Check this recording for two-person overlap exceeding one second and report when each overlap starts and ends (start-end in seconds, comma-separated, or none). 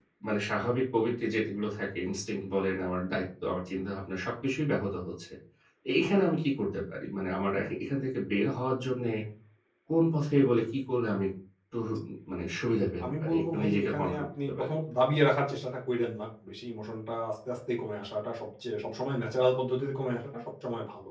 13.0-14.7